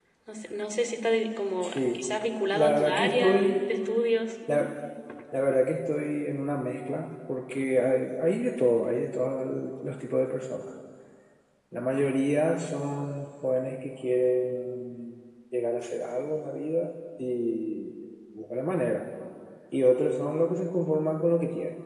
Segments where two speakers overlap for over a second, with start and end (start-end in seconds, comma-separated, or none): 2.5-3.7